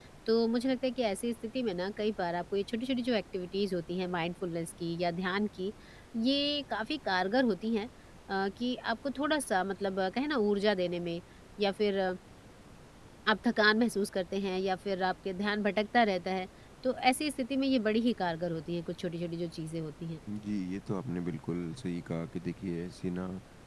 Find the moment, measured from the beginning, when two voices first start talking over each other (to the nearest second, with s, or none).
none